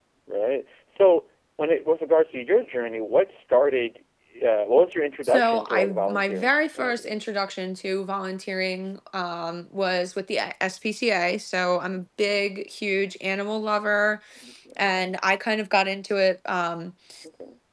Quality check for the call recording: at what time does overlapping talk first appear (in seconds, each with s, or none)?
5.2 s